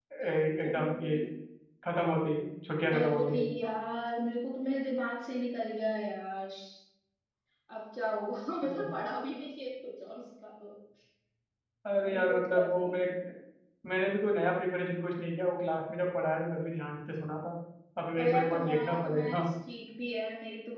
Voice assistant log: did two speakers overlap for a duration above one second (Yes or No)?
Yes